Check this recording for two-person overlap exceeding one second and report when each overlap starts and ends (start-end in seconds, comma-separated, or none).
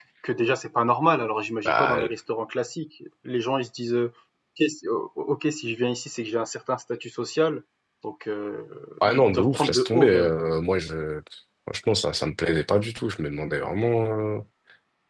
9.0-10.3